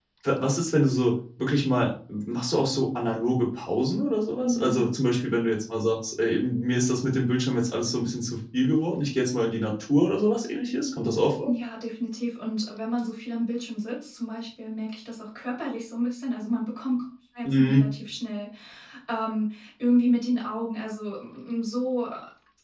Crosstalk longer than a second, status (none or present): none